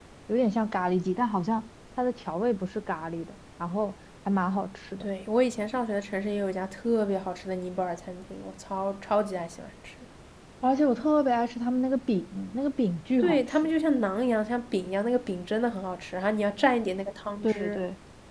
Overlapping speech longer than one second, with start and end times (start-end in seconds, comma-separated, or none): none